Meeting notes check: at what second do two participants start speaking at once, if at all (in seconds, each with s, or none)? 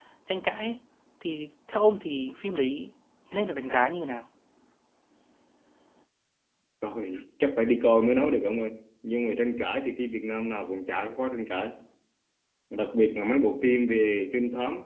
none